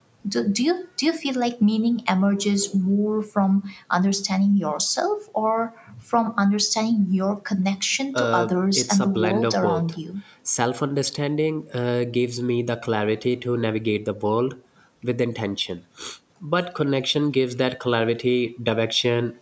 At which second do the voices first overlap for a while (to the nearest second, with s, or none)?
8 s